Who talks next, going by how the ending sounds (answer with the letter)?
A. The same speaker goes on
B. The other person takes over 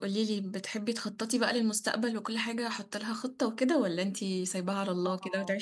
B